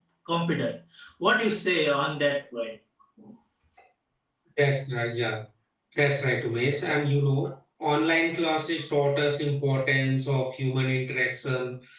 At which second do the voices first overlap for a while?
none

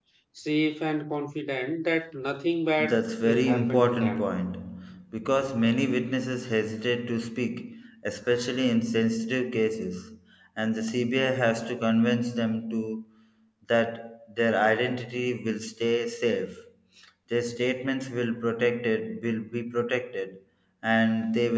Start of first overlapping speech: 3 s

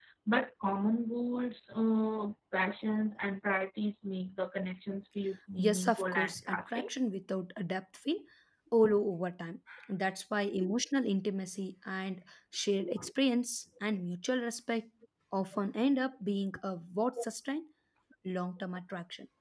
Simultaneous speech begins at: 6 s

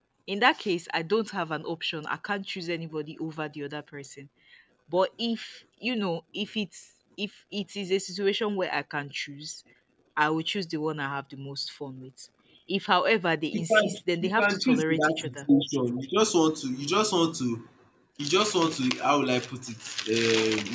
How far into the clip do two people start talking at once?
14 s

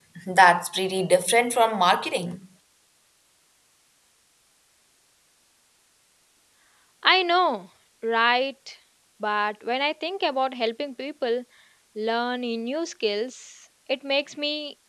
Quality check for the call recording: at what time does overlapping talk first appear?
none

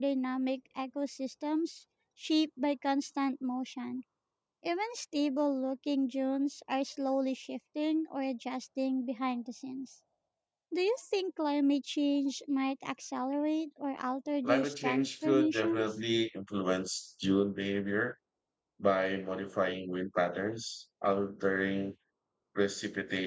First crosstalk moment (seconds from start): 14 s

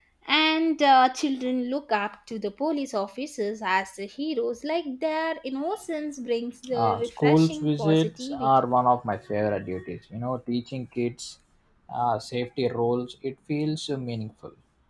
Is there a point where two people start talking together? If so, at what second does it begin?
7 s

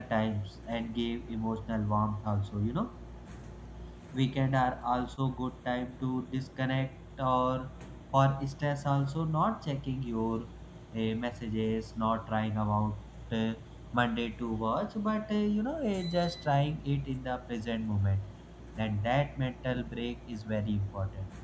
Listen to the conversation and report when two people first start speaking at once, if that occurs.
none

